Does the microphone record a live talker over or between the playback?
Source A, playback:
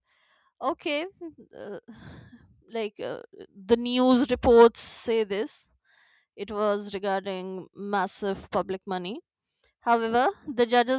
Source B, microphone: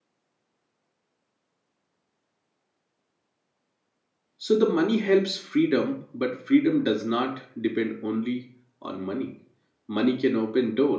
Yes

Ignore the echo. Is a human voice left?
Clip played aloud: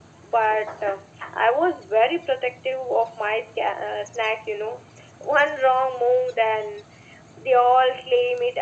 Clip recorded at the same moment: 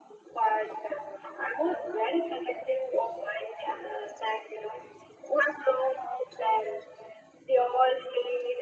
No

